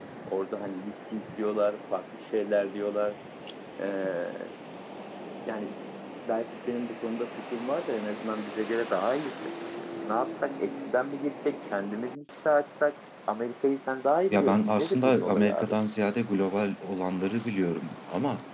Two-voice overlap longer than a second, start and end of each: 14.3-15.7

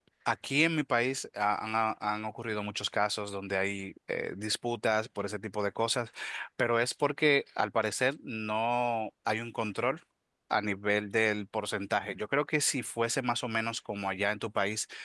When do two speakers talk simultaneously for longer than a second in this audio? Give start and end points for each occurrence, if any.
none

